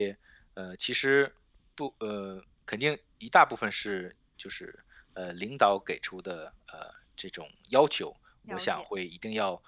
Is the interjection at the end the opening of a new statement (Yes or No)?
No